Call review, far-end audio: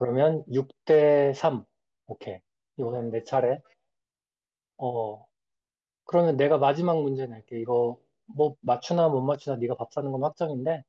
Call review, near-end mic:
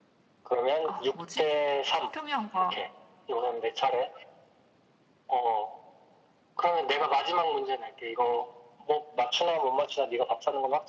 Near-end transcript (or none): 아, 뭐지? 태평양과